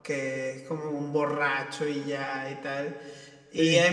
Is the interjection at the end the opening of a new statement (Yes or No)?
No